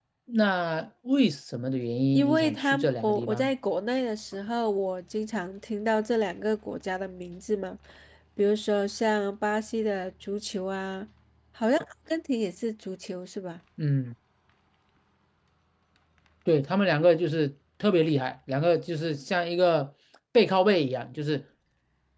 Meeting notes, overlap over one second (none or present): present